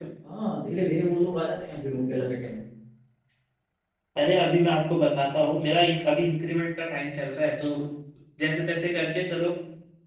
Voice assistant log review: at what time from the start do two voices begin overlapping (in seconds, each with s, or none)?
none